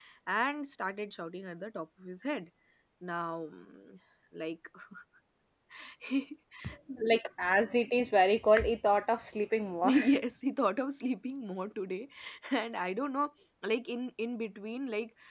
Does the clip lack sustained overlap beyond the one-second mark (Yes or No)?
Yes